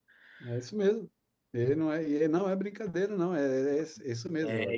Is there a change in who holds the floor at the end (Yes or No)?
Yes